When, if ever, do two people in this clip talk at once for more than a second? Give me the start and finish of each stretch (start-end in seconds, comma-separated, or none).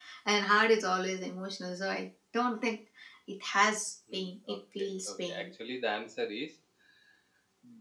4.1-5.4